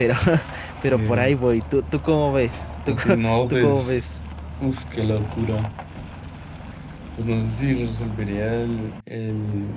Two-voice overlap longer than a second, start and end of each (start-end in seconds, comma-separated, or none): 2.9-4.1